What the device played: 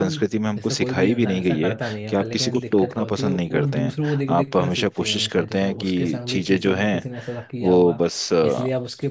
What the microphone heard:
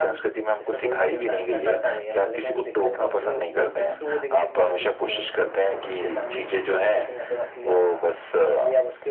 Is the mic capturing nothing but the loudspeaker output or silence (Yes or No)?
Yes